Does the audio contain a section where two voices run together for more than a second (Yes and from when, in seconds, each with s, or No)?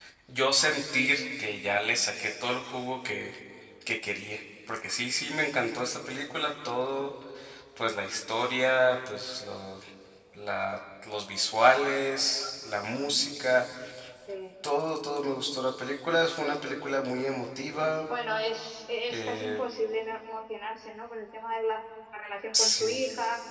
No